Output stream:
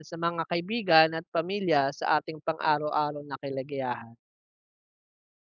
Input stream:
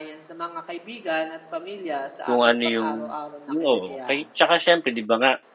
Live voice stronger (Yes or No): Yes